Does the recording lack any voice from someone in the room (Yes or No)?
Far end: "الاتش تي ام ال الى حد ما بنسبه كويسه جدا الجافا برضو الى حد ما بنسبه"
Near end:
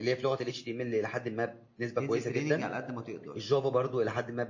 No